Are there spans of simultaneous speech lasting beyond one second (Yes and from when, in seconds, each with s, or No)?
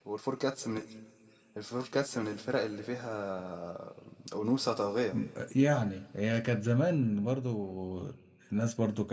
No